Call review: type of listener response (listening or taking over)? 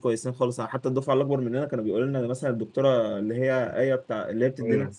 listening